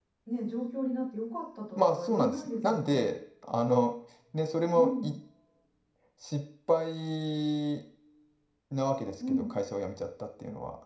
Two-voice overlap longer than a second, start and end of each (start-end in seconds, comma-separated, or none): 1.8-3.1